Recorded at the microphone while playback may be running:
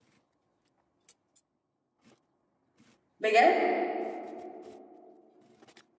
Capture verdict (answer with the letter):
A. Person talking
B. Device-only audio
A